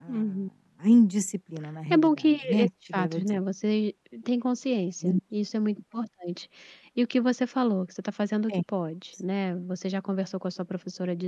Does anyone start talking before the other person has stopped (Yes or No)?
Yes